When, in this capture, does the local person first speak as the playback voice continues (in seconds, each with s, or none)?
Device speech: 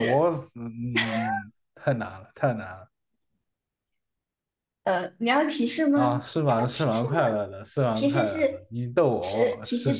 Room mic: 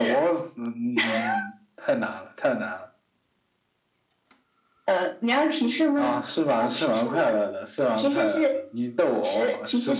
none